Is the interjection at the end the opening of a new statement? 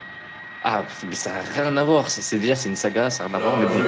Yes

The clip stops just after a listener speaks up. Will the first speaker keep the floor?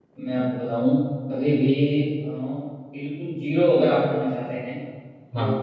Yes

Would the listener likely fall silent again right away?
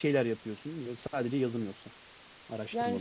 No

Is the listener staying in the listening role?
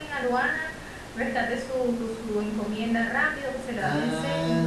No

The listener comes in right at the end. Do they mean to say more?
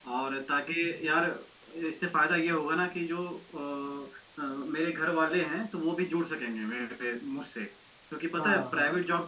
No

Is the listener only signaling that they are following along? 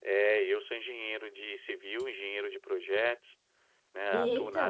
Yes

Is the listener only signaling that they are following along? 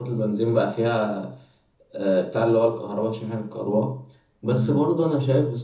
Yes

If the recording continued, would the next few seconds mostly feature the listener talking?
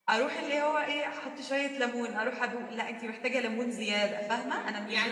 Yes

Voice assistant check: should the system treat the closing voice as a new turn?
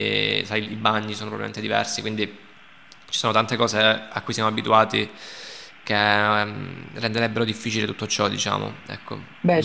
Yes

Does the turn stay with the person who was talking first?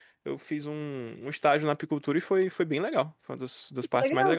No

